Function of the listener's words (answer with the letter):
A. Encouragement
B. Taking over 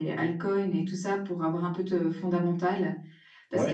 A